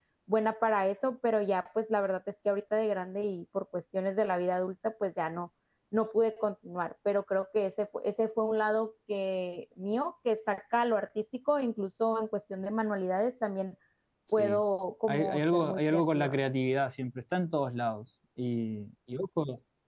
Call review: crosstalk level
present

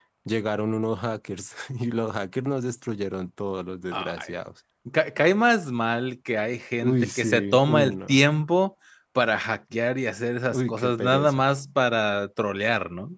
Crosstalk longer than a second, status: present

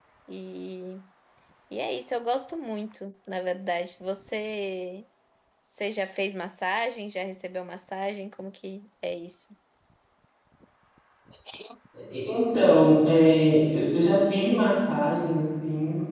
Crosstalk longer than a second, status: none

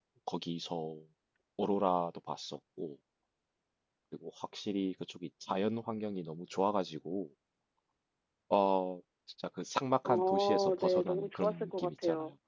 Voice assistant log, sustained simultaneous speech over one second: present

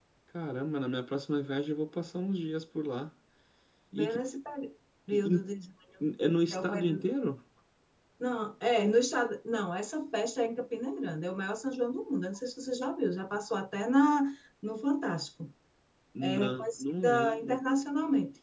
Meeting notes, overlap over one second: present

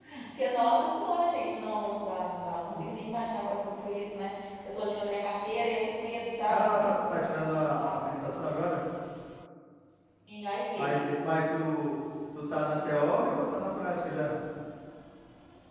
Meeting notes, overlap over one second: none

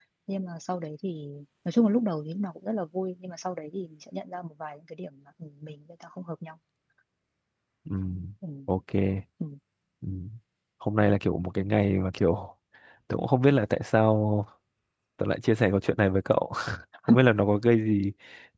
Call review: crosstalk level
none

